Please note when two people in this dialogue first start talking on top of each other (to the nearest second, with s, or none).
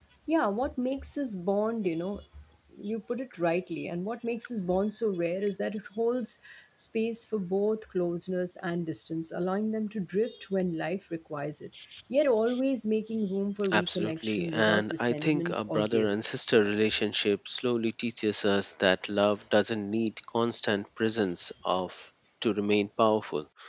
14 s